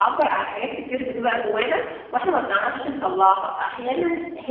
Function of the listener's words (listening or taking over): listening